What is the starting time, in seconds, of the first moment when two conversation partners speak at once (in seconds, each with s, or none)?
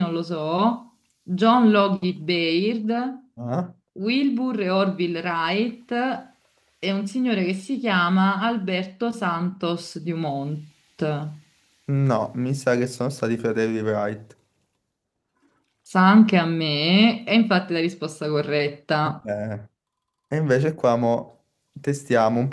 none